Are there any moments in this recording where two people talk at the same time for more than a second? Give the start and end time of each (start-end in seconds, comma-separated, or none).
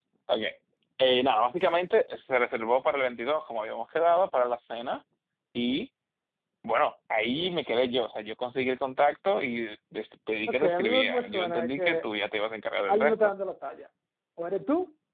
10.5-12.0